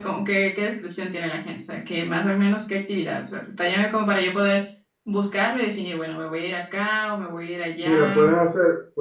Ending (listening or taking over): taking over